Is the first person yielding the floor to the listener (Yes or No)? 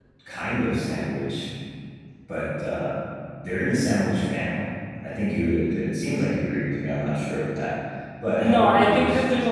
Yes